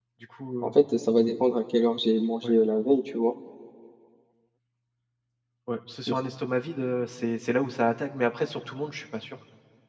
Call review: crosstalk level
none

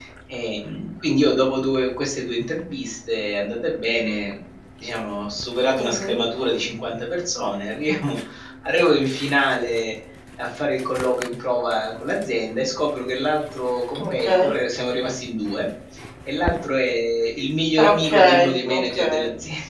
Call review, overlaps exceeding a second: present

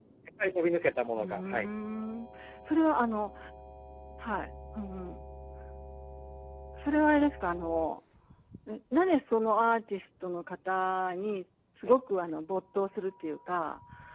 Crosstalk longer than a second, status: none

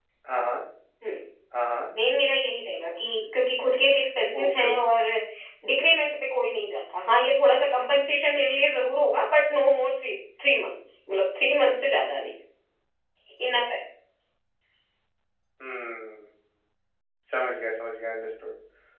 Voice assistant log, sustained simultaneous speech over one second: none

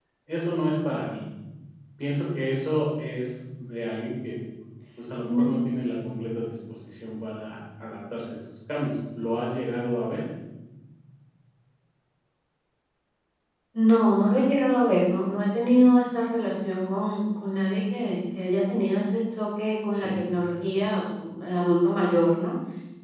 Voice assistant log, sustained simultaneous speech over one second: none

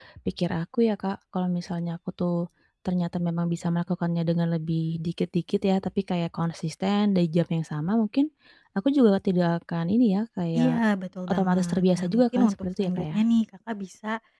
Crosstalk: present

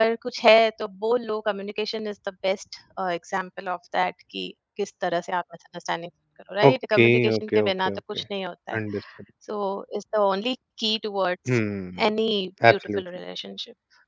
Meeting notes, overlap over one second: present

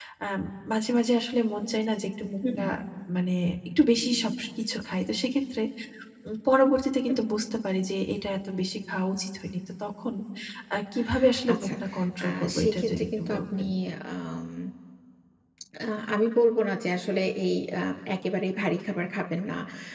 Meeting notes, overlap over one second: present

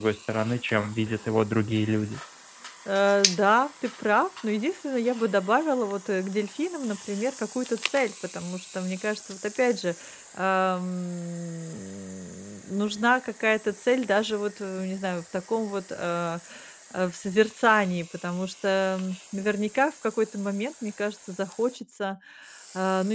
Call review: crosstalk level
none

